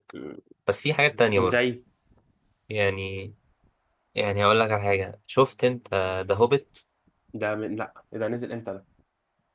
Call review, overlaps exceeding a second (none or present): none